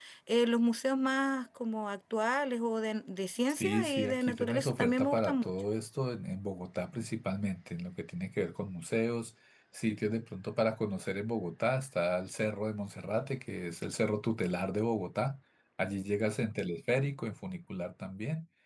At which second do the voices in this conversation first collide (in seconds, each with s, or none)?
3.5 s